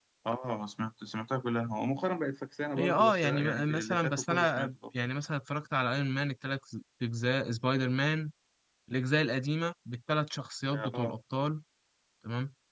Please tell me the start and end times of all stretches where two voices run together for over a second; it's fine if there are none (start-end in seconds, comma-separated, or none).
2.8-4.7